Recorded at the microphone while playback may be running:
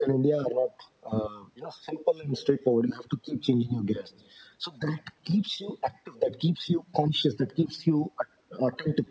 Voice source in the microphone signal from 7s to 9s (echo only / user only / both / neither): echo only